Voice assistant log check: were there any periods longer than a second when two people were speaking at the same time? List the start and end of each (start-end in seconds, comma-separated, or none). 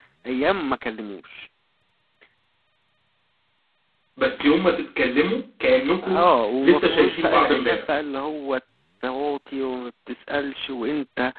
6.6-7.8